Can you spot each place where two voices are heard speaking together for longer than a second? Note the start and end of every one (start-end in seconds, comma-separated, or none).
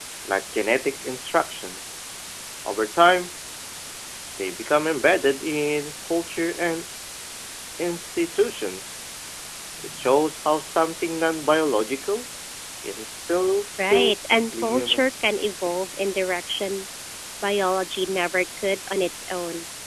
13.9-15.1